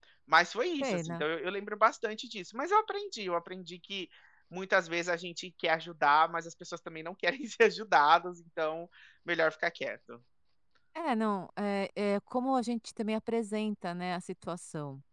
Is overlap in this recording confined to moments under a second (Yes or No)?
Yes